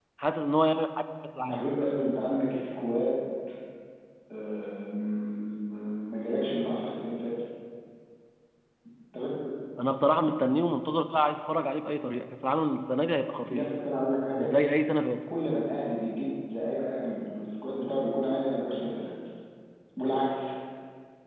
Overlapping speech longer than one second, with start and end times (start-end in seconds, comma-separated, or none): none